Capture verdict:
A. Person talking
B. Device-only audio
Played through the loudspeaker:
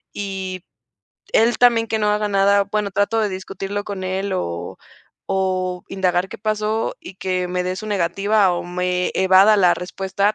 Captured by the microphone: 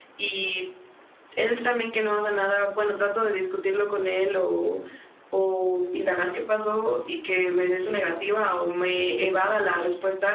B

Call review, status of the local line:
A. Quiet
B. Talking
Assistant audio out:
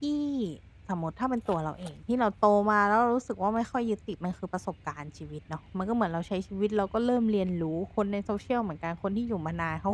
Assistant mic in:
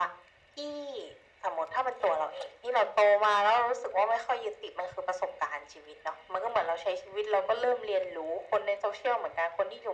A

